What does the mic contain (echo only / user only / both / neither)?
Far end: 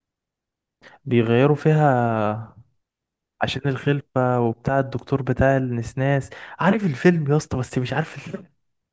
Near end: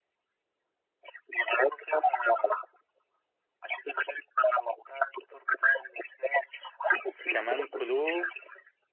both